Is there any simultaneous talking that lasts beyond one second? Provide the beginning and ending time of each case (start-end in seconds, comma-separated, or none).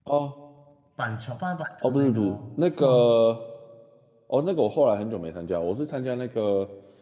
1.9-3.1